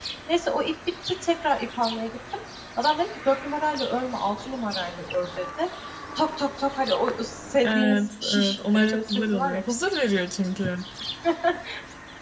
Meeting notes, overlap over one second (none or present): present